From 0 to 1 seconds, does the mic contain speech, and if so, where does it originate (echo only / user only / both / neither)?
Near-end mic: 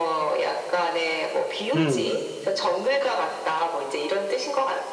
echo only